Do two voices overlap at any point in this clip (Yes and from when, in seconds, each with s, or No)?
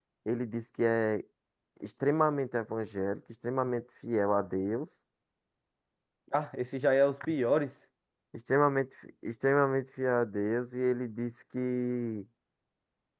No